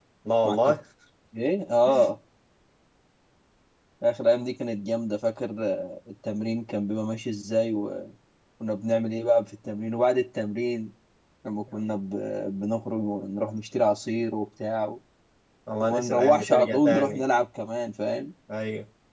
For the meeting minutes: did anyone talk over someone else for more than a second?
Yes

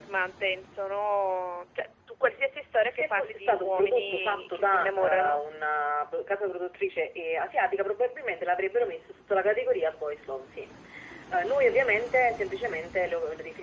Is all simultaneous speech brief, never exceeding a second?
No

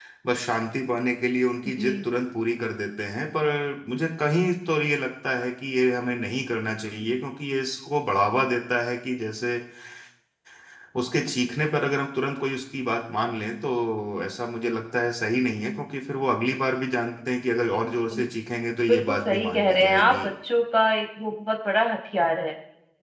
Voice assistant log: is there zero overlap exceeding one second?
No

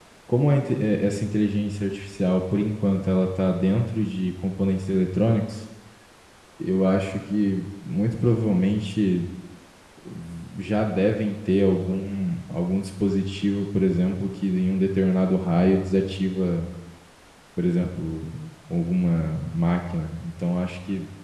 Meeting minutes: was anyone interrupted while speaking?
No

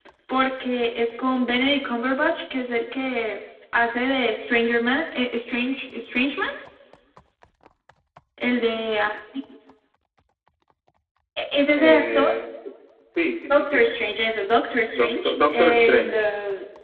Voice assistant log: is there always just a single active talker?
No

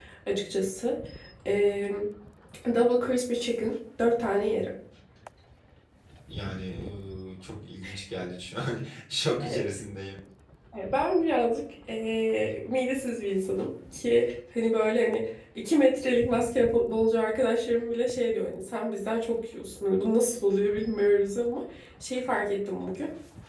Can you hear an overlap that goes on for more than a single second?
No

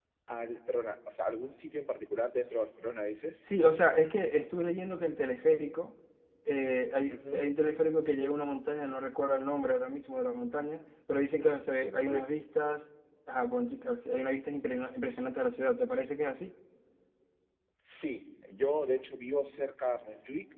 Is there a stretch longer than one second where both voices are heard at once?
No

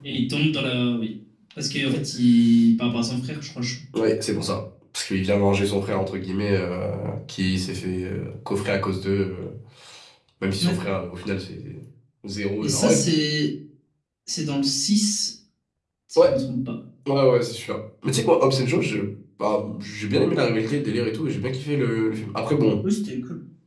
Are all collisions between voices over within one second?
Yes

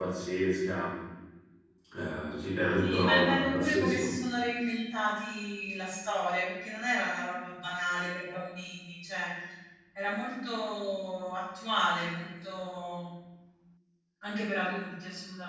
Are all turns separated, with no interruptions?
No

